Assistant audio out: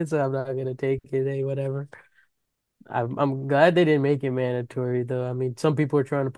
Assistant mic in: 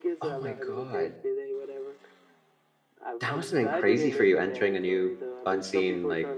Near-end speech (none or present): present